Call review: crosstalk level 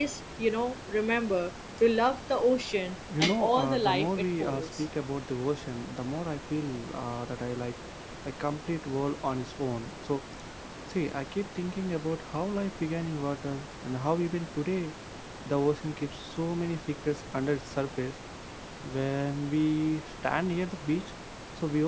present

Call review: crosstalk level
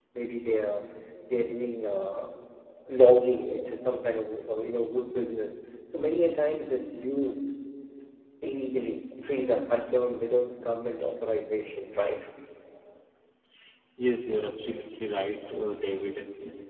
none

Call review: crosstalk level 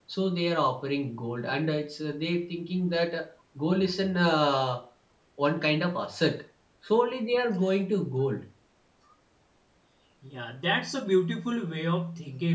none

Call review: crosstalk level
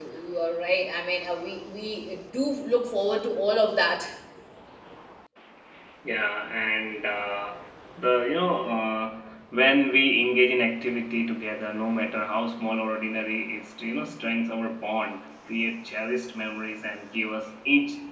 none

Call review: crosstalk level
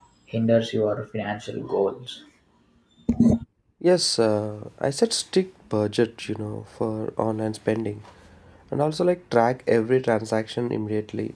none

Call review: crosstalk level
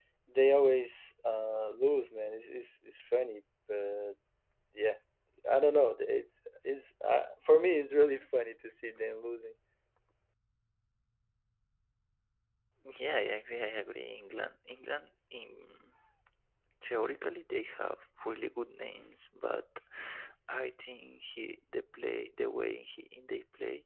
none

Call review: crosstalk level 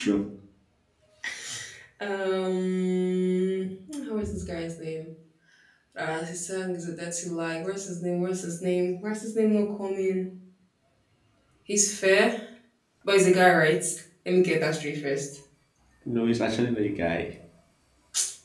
none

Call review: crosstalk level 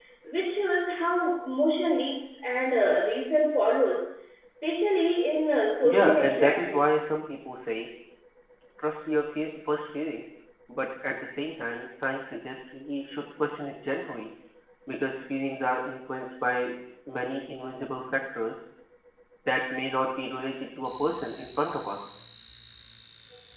present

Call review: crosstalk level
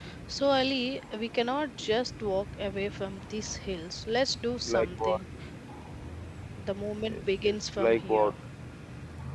present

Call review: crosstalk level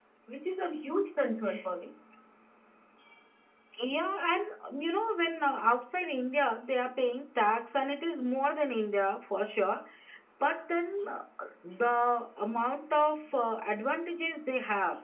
none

